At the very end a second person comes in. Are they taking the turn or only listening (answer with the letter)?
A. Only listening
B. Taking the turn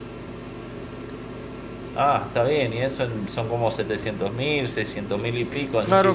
B